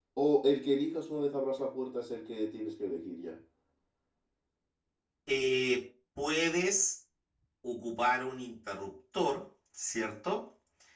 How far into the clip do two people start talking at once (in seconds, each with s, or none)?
none